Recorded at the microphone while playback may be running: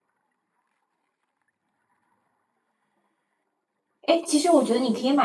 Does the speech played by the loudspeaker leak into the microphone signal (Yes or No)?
No